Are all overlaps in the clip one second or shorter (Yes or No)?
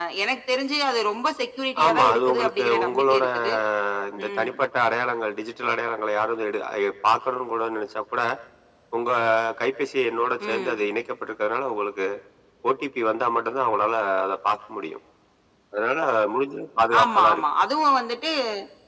No